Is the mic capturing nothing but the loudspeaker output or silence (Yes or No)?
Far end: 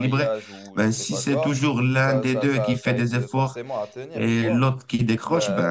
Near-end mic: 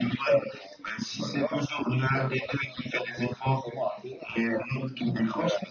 Yes